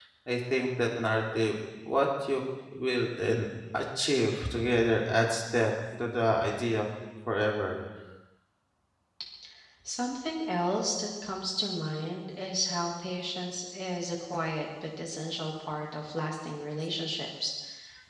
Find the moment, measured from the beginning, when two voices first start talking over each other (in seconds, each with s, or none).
none